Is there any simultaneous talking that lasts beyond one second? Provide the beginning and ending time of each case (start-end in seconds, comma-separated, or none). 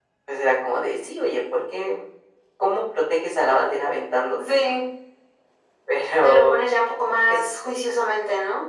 none